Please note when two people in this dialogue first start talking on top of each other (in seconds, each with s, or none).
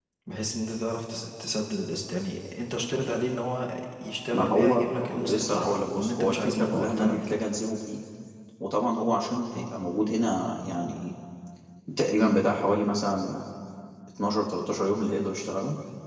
4.3 s